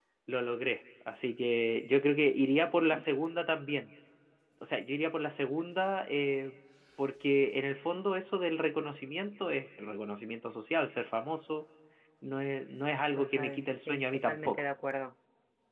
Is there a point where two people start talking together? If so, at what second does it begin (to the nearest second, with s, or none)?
13 s